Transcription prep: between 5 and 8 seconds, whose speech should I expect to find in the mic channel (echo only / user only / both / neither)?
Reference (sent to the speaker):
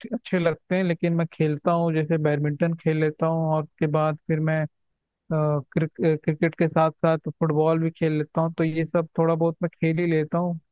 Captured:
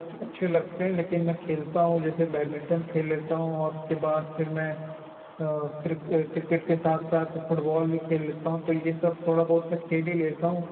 echo only